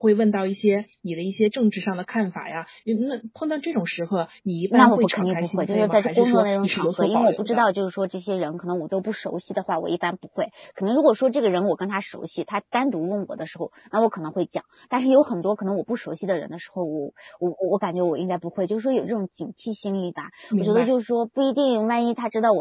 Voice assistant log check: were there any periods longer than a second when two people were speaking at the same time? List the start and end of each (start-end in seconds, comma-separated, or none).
4.7-7.7